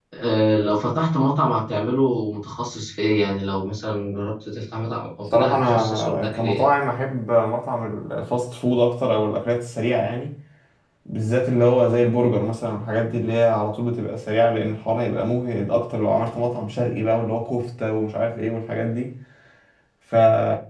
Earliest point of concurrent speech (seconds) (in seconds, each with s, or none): 5.3 s